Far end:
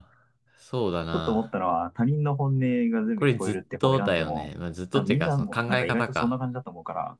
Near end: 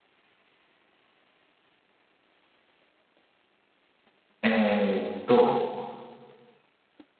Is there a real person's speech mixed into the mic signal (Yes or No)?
Yes